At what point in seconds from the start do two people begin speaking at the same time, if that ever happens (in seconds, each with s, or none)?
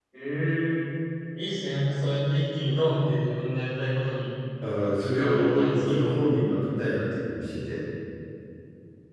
5.0 s